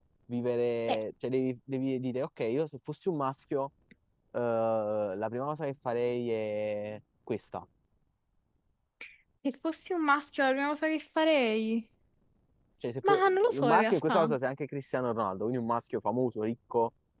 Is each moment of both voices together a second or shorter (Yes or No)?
No